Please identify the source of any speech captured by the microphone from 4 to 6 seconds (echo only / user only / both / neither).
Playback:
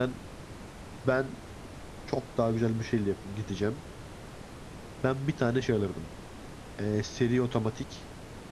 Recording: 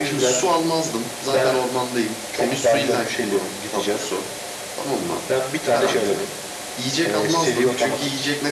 both